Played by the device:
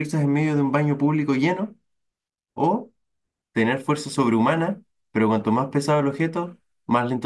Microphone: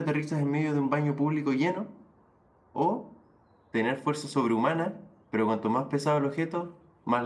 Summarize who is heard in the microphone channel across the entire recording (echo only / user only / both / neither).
echo only